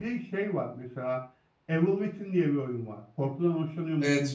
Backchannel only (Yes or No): No